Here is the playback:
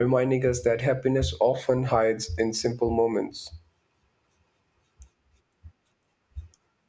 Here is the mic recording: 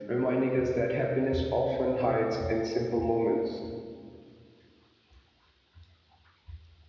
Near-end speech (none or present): none